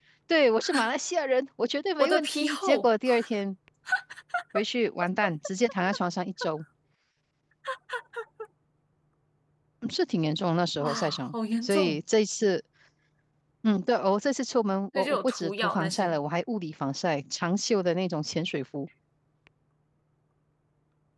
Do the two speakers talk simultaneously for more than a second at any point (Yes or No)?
Yes